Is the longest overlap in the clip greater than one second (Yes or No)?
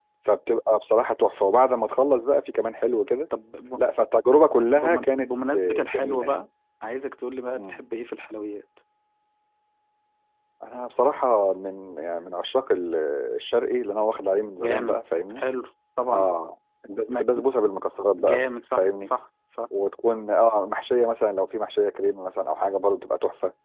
Yes